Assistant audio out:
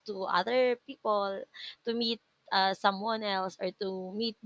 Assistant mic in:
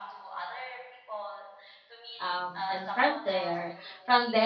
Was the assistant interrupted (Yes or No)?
Yes